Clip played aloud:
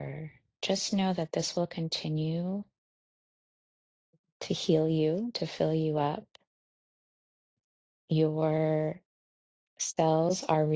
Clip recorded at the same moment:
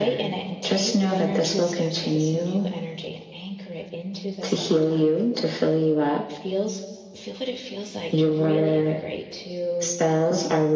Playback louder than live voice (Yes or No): Yes